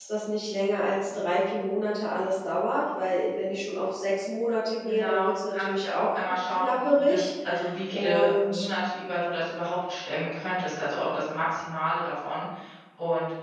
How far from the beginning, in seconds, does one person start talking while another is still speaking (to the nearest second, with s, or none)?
5 s